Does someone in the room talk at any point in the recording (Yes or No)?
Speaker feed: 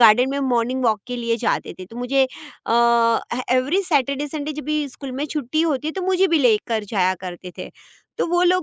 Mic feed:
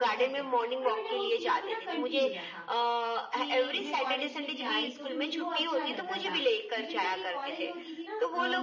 Yes